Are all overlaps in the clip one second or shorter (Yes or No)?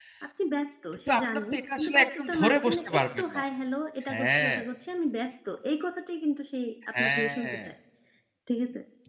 No